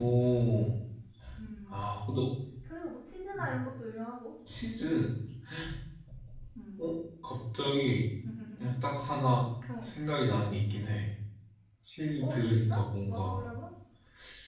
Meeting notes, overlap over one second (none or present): present